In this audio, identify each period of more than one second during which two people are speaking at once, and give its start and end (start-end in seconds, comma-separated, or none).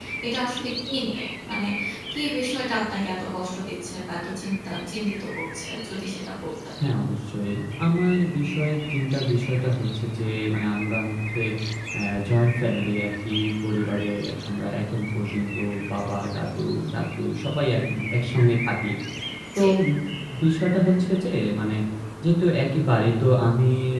none